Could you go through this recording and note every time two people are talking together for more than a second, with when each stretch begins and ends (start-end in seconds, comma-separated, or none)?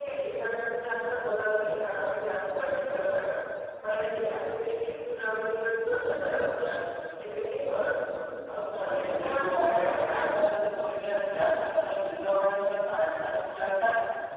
8.7-10.1